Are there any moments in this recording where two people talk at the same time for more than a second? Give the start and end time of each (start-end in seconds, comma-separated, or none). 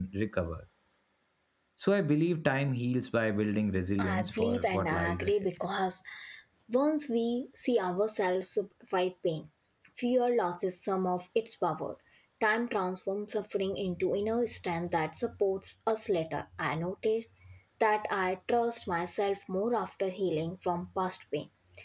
4.0-5.3